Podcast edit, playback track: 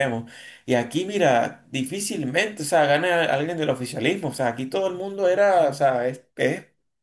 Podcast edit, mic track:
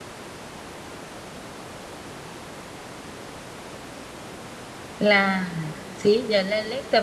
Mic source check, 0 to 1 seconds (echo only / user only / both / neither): neither